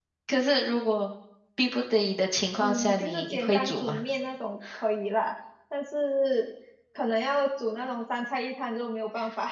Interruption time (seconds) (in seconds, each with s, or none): 2.6 s